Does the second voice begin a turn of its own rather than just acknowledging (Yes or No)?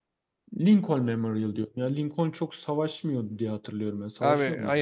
Yes